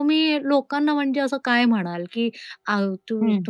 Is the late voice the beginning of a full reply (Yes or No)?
No